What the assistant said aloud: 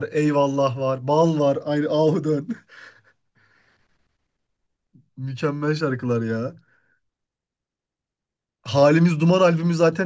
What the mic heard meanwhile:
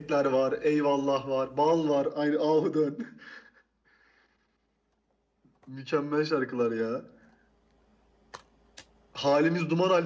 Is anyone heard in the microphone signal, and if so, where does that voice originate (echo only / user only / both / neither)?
echo only